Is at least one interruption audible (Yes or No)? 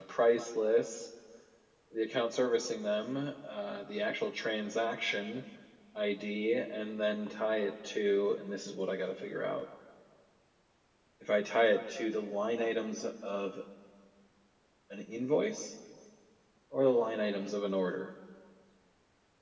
No